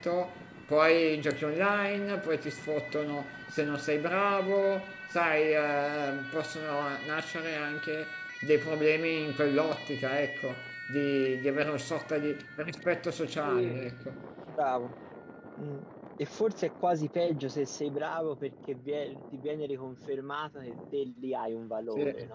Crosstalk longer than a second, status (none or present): none